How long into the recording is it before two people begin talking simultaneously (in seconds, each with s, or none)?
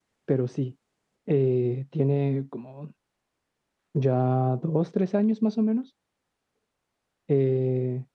none